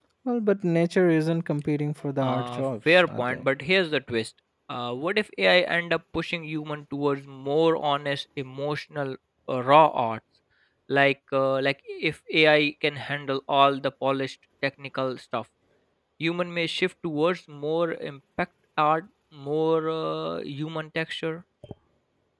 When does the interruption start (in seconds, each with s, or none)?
2.2 s